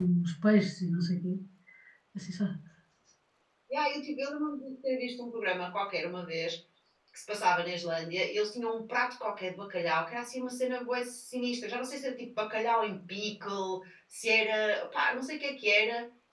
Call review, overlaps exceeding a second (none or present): none